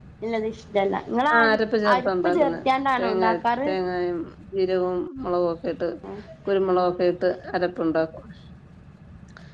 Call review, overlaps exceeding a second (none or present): present